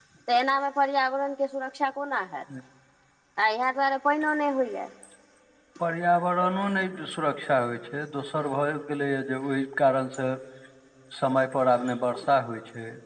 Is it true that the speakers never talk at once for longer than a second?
Yes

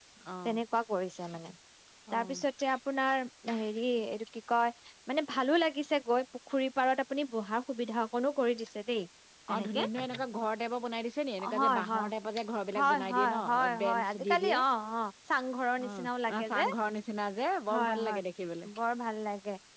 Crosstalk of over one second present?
Yes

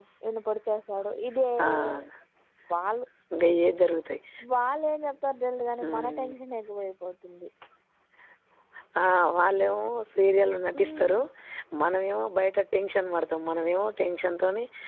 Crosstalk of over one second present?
No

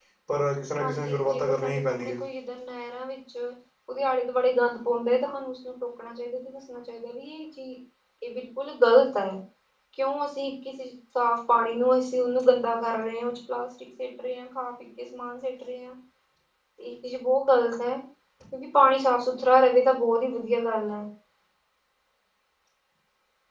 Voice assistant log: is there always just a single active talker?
No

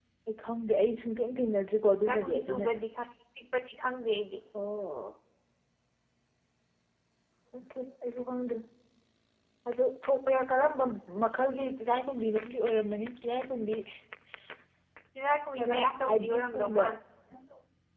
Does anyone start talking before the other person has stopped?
Yes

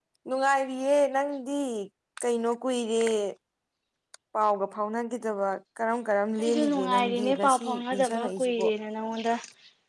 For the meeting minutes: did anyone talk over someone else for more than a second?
Yes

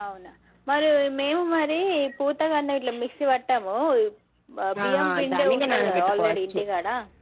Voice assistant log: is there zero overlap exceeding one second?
No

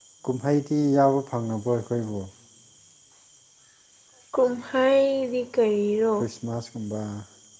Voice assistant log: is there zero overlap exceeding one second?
Yes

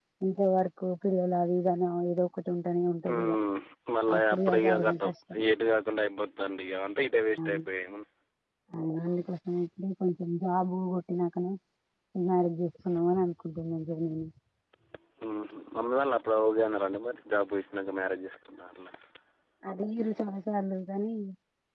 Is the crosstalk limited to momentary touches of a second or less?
No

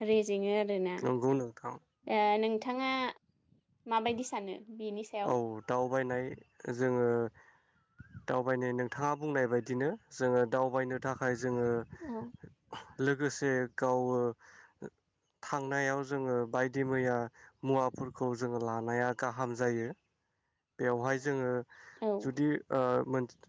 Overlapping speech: No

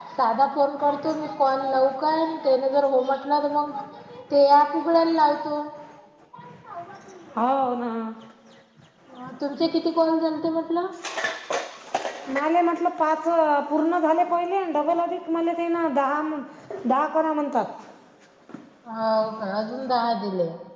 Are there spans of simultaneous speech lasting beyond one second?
No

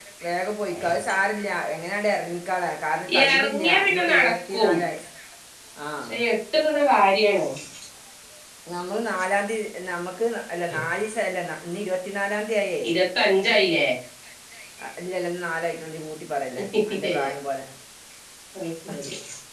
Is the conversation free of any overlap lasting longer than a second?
No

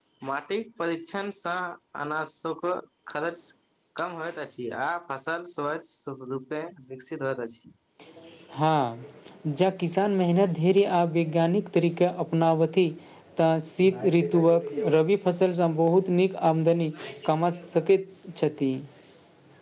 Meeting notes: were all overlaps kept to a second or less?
Yes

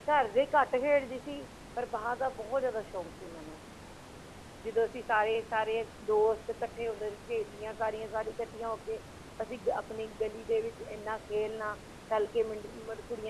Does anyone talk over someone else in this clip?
No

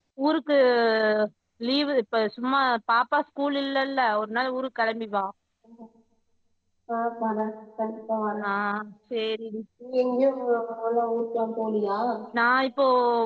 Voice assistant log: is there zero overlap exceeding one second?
Yes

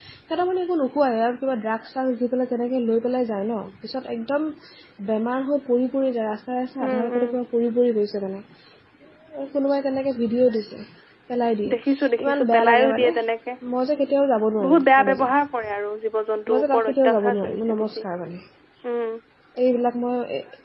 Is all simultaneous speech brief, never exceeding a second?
No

